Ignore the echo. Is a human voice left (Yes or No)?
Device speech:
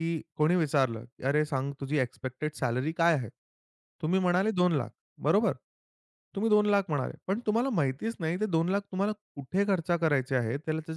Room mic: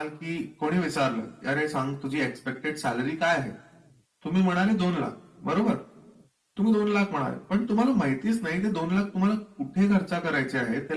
No